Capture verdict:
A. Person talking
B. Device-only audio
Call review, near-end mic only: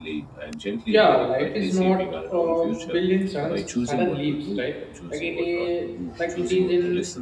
A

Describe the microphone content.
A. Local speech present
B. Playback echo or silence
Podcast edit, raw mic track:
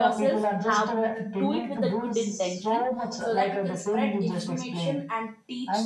A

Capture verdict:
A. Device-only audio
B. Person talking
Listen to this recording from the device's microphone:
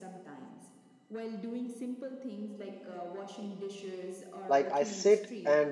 B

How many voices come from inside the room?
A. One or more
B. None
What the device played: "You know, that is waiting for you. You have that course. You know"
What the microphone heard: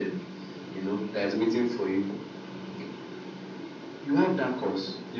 B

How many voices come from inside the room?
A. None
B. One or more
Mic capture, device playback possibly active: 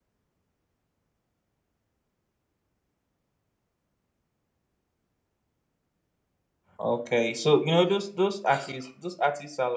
B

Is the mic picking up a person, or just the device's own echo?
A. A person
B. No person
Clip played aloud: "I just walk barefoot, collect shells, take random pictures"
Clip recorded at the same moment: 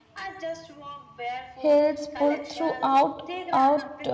A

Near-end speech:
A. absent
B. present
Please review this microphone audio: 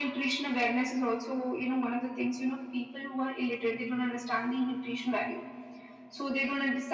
A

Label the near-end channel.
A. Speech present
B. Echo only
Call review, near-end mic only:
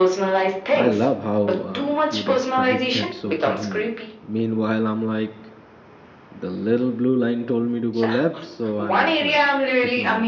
A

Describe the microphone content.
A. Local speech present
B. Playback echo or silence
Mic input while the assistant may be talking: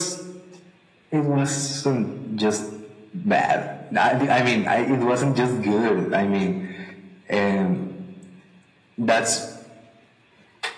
B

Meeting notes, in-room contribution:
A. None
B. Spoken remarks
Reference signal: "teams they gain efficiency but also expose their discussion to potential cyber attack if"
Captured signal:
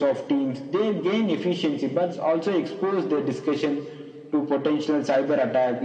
A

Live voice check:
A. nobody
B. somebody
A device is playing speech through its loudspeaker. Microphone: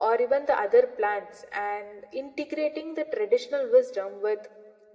A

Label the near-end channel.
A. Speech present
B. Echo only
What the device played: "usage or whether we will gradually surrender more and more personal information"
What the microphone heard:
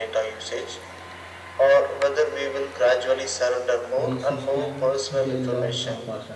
A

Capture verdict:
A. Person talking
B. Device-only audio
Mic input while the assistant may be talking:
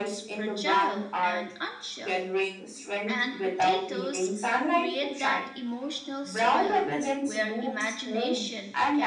A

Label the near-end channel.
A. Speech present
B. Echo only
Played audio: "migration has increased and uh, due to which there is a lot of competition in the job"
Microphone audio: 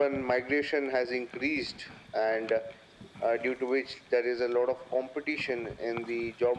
B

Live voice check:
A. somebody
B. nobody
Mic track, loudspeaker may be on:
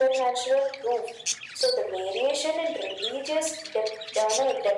B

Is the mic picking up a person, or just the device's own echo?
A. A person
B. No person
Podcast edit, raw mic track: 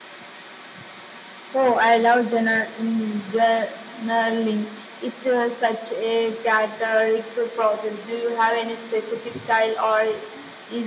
B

